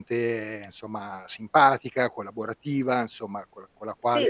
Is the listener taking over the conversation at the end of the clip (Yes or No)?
Yes